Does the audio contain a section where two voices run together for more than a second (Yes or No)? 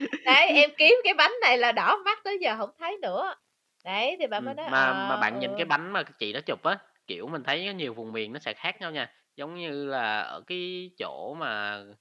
Yes